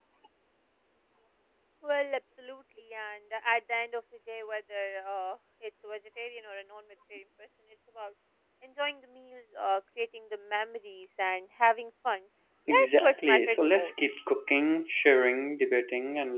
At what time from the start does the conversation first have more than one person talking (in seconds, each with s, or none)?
12.7 s